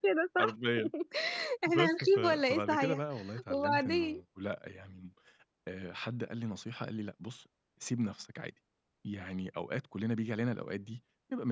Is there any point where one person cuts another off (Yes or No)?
Yes